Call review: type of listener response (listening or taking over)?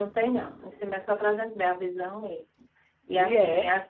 listening